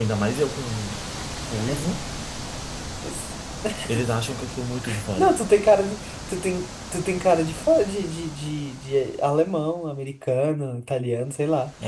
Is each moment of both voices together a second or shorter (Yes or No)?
Yes